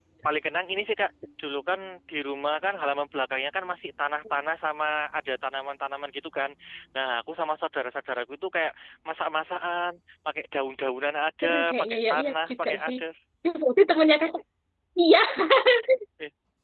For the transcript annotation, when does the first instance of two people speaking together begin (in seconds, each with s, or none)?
11.4 s